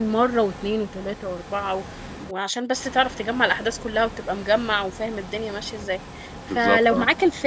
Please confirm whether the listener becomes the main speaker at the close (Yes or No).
No